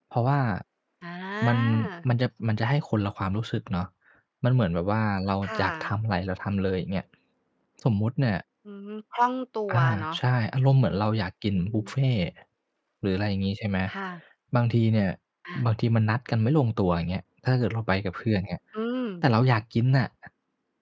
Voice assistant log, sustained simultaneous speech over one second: none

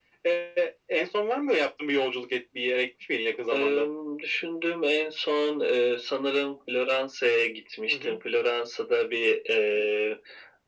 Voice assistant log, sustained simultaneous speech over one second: none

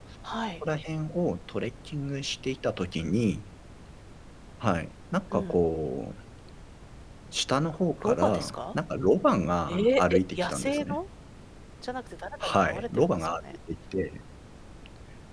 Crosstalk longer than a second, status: present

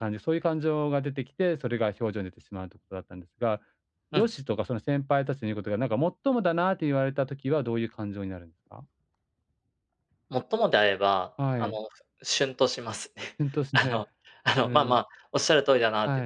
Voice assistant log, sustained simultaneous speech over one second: none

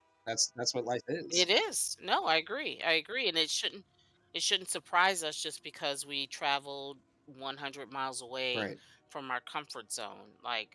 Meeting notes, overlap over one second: none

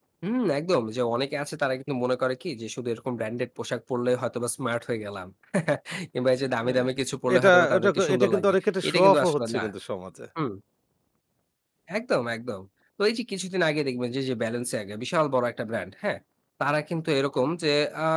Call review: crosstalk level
present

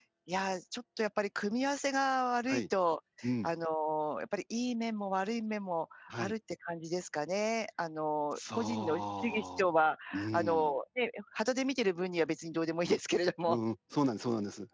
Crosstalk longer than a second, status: present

